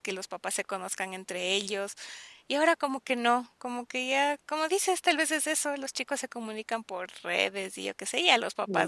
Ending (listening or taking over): taking over